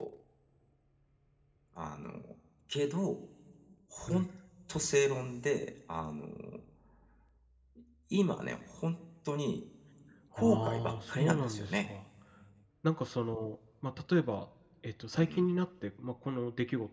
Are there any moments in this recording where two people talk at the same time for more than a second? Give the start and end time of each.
10.3-11.9

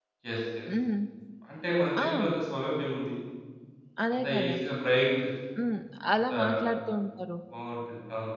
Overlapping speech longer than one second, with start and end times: none

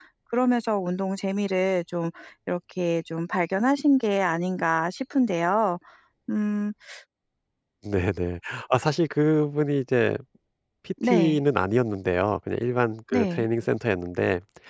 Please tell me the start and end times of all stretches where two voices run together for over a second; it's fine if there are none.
none

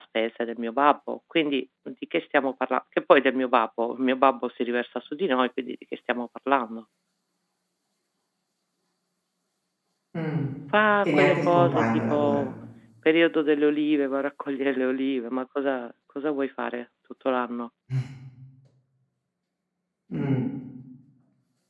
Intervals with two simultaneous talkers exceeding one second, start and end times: 11.0-12.4

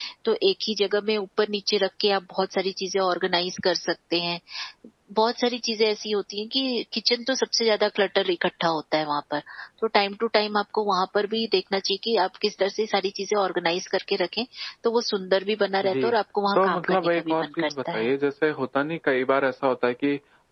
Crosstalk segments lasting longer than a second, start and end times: 16.6-18.1

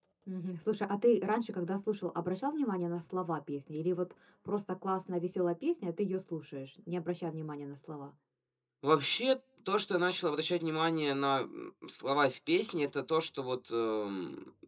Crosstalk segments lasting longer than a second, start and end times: none

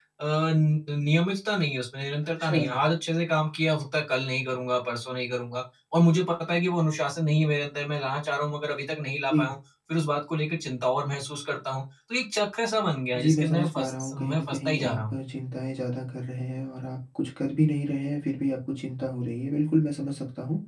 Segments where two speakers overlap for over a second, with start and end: 13.2-15.2

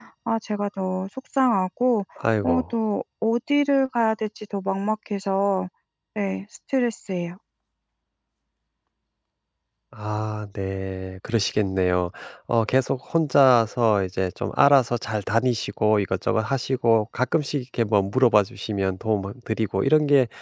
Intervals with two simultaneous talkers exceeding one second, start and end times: none

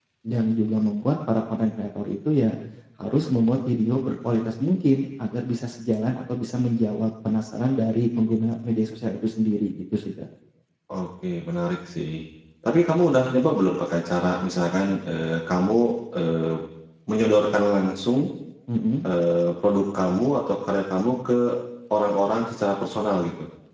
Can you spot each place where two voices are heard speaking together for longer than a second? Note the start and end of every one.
none

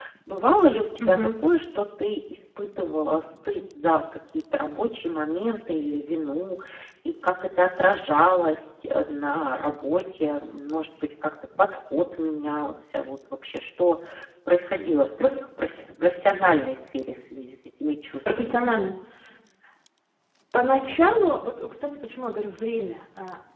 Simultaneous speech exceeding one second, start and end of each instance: none

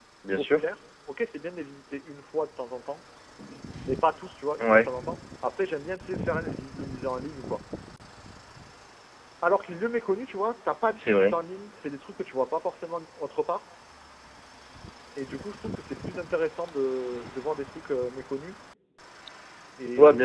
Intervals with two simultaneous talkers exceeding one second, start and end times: none

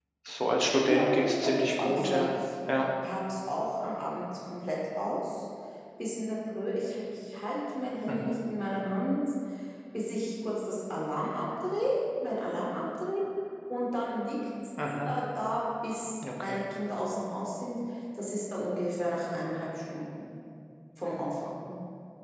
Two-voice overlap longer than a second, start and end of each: 0.8-2.3

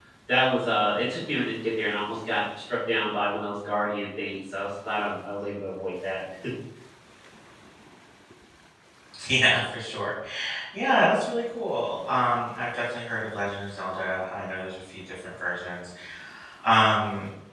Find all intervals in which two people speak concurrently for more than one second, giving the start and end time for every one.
none

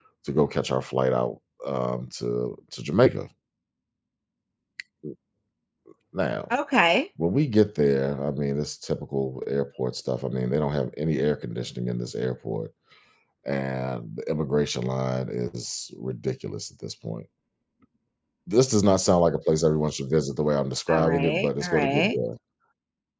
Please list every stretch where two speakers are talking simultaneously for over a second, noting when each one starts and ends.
20.9-22.1

